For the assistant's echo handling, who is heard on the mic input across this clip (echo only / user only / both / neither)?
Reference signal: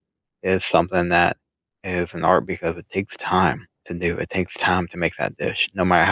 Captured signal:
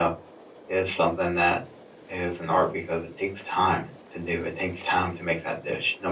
echo only